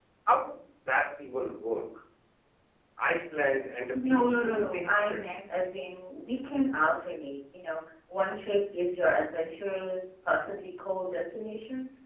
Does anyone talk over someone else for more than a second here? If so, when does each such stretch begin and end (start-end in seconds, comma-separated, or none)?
3.9-5.2